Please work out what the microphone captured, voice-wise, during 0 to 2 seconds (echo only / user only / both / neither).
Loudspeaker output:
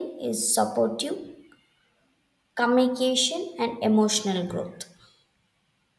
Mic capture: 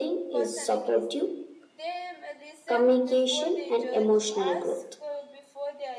both